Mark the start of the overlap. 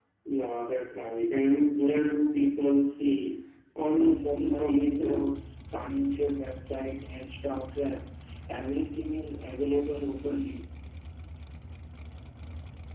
4.0 s

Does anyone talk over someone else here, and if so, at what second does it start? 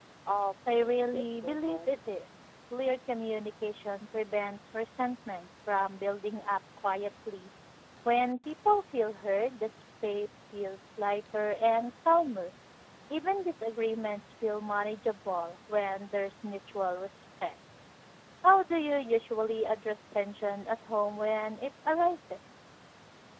0.7 s

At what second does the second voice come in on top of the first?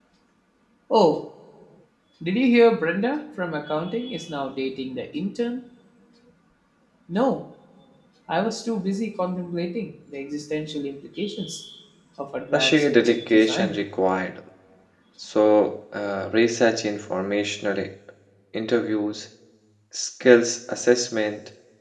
12.5 s

